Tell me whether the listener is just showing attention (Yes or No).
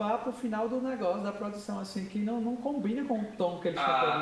No